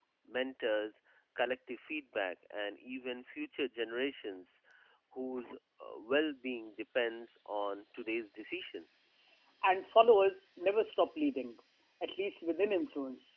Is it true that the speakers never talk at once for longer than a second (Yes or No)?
Yes